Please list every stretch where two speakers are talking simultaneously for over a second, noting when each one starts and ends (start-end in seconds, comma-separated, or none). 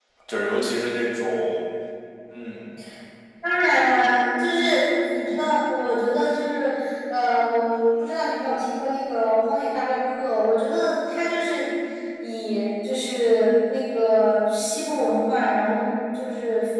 none